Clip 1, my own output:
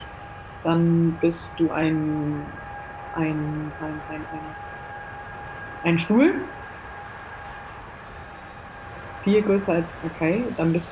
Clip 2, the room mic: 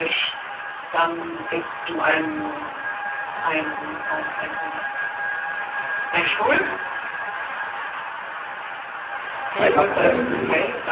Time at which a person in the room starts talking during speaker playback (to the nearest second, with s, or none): 10 s